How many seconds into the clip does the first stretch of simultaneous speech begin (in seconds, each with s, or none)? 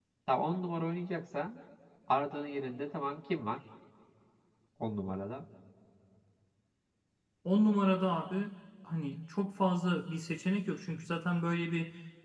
none